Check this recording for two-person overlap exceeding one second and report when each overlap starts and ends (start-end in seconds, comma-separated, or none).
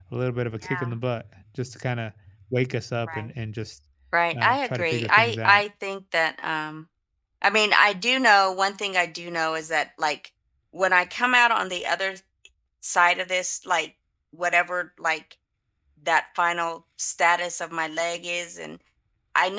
4.4-5.6